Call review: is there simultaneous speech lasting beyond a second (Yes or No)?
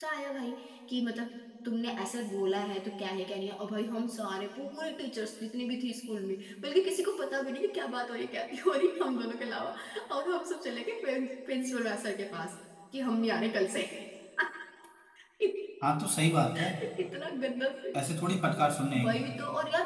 No